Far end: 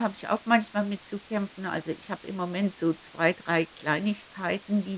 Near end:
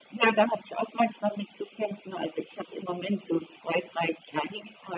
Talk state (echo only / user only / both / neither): echo only